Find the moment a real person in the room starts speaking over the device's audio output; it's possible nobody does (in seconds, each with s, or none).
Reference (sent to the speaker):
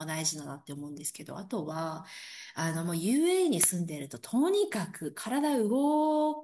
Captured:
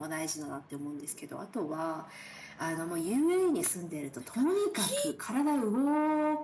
4.2 s